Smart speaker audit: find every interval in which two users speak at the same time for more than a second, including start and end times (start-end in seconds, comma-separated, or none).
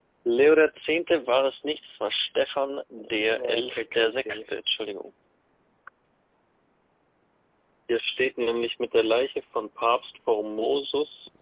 3.0-4.5